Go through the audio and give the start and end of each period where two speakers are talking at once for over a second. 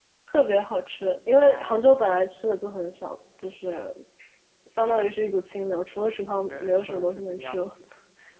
6.5-7.7

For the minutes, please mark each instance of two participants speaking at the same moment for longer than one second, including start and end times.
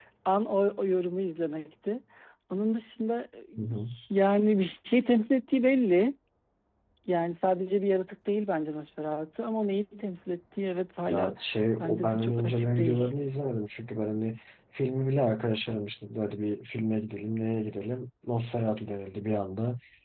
11.8-13.1

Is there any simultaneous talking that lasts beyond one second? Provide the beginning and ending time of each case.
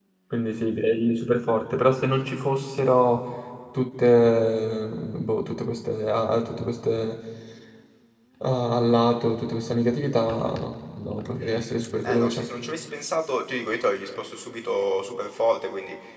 none

